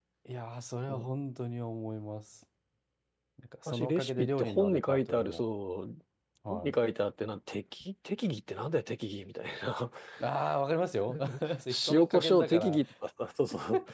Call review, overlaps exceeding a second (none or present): present